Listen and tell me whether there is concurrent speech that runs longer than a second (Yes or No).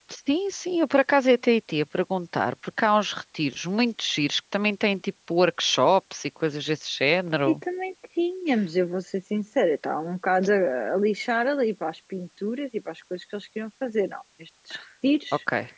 No